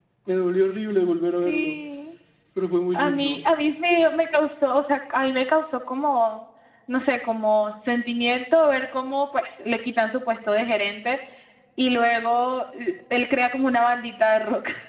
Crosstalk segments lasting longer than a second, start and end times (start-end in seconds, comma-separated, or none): none